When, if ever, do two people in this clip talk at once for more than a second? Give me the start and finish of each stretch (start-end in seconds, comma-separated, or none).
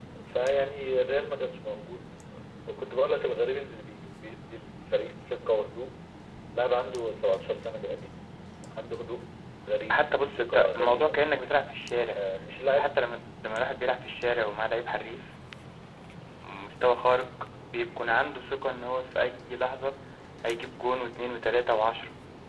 9.9-11.2